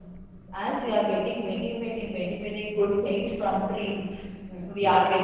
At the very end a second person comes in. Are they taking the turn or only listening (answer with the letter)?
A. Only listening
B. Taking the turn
A